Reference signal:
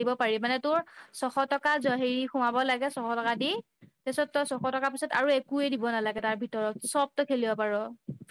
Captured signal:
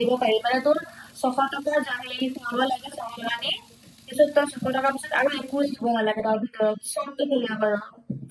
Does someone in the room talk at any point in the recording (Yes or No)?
No